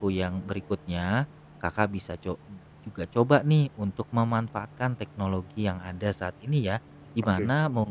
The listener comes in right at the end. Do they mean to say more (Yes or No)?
No